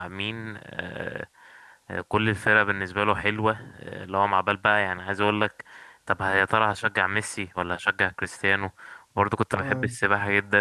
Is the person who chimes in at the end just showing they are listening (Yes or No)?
Yes